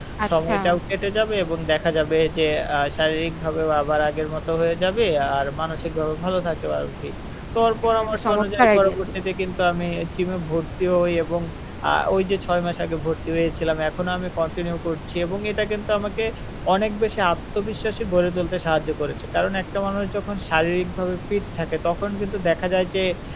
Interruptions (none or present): present